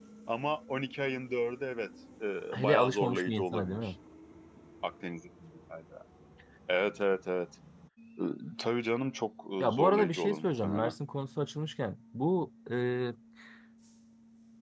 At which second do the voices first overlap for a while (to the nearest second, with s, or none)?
3 s